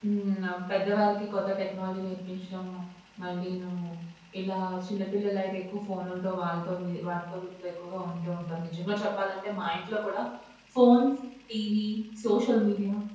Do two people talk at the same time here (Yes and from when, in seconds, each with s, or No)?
No